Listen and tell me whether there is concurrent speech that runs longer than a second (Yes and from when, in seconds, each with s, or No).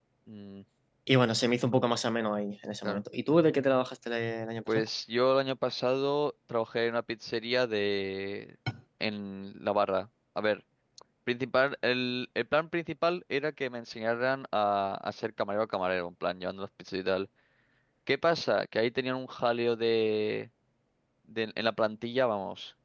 No